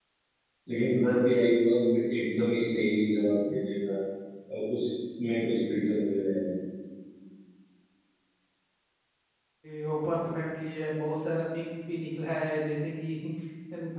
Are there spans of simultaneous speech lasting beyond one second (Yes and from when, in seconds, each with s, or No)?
No